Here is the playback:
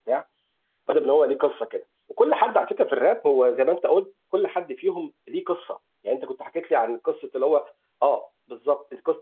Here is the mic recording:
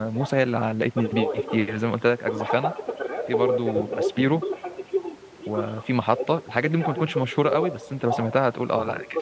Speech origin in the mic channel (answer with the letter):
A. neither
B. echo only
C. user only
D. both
D